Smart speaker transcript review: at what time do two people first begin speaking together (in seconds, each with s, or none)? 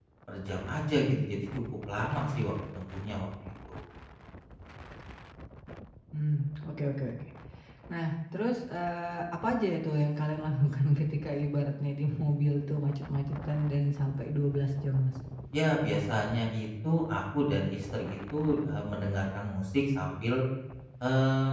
none